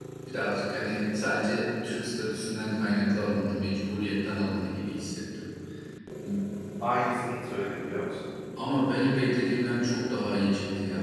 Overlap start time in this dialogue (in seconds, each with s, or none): none